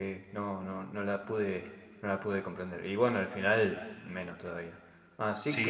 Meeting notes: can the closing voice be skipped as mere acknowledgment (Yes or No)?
No